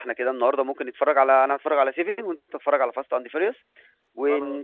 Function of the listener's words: listening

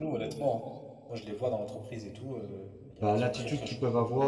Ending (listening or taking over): taking over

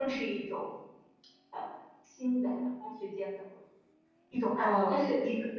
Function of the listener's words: taking over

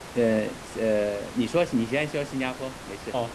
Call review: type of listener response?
taking over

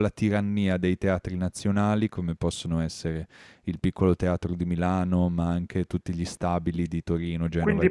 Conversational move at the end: taking over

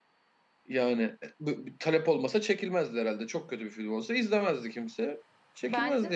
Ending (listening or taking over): taking over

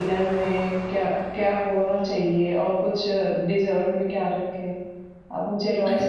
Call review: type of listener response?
taking over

